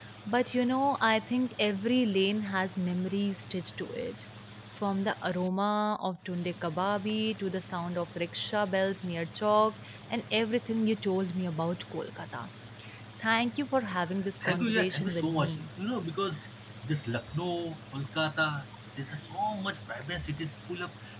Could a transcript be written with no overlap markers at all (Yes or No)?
No